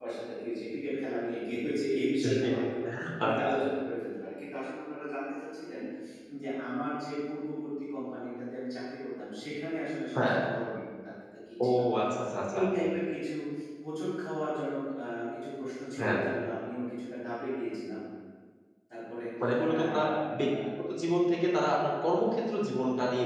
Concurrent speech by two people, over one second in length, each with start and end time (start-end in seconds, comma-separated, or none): none